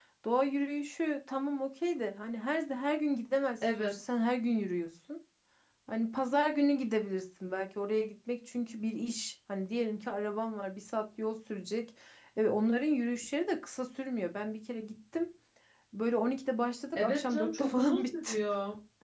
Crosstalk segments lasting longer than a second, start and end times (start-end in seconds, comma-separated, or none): 16.9-18.4